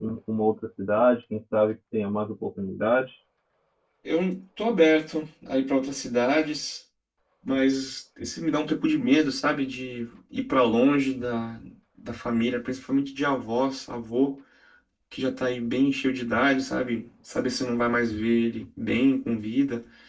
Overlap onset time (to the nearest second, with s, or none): none